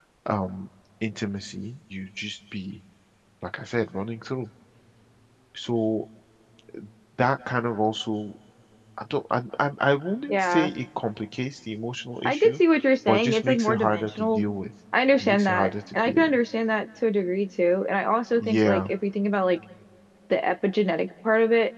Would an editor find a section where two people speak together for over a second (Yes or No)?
Yes